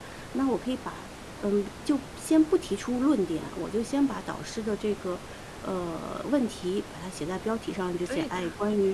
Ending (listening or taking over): listening